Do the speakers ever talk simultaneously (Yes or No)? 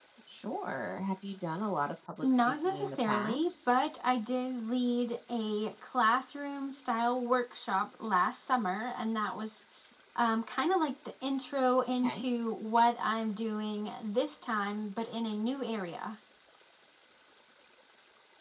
Yes